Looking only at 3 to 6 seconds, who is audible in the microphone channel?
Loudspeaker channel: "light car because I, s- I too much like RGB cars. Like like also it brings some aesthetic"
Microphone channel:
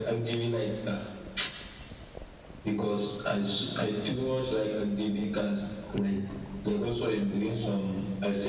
echo only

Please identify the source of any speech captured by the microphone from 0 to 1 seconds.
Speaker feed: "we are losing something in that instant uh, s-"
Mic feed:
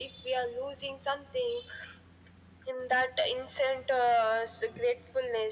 echo only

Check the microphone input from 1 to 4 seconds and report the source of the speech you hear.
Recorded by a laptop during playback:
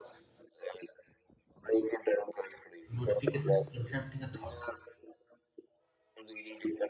both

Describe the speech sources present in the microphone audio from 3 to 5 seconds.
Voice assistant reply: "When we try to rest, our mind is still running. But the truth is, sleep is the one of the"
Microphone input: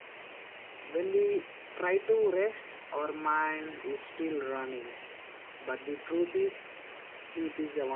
echo only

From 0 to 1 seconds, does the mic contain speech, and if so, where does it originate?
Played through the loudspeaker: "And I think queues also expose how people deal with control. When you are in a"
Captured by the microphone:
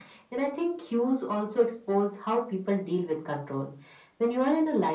echo only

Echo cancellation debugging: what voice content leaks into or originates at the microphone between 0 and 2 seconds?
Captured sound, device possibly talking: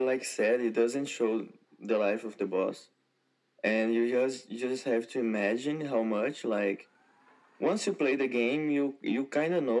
echo only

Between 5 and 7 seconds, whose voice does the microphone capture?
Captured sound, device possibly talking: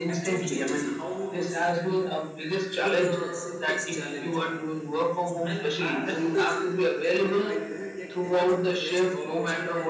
both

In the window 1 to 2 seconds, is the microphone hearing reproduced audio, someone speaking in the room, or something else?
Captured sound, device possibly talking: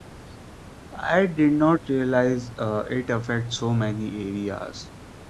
user only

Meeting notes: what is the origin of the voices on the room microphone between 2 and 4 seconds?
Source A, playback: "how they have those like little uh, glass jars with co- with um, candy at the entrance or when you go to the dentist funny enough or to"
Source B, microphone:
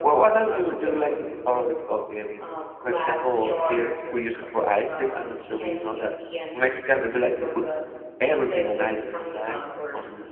both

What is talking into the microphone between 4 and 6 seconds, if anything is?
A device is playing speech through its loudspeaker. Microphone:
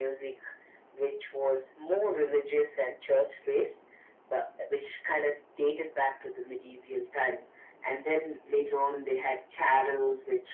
echo only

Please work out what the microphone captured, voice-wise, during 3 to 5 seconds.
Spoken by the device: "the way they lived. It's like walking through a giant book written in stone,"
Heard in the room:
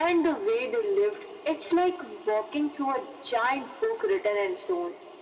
echo only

